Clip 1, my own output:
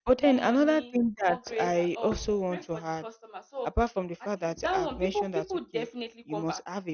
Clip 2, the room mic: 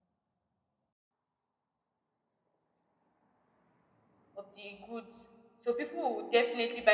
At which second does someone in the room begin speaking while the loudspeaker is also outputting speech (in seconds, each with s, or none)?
4.3 s